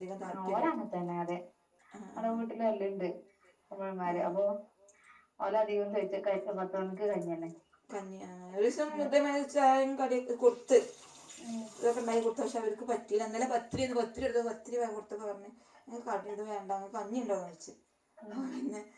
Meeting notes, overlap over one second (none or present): none